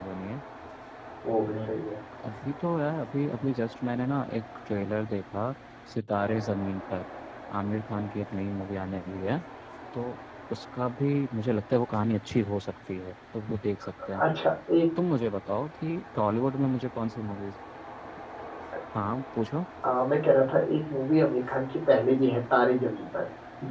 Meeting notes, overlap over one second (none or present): none